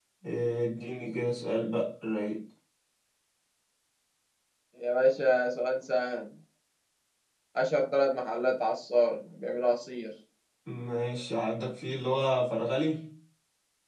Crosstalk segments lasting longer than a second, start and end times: none

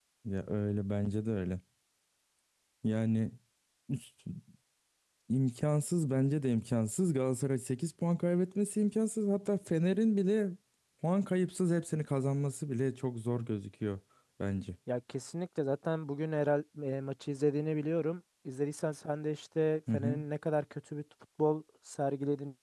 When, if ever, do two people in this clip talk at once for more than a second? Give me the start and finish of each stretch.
none

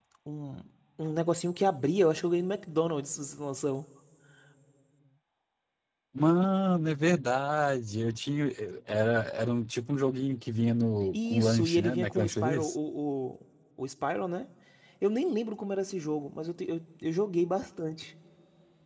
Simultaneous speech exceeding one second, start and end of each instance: 11.1-12.8

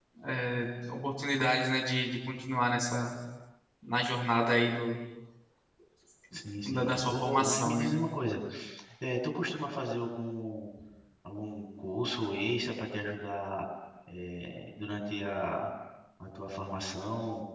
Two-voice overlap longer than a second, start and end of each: 6.7-8.0

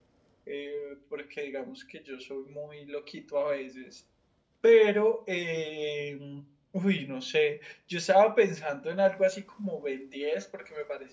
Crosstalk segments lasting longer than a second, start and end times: none

